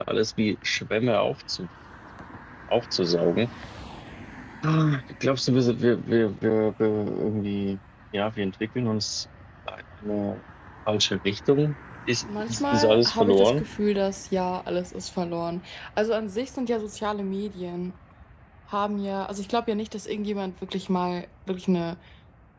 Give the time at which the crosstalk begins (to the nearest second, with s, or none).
12 s